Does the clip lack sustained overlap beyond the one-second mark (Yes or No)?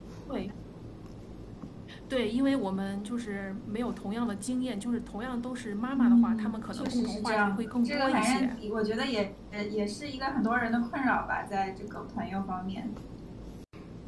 No